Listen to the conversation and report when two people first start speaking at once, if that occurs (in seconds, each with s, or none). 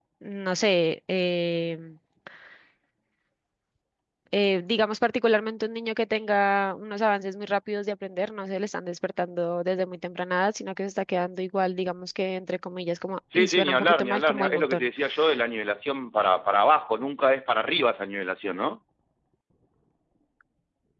13.3 s